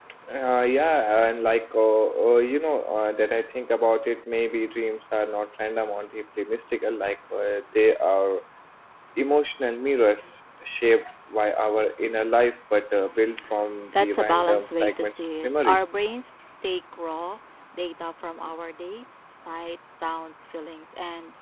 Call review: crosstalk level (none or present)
present